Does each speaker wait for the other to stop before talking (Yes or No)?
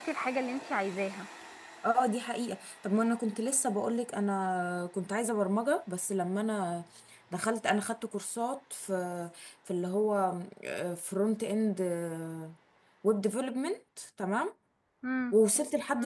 Yes